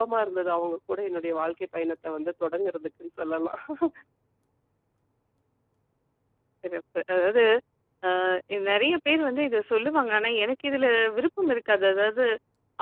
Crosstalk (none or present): none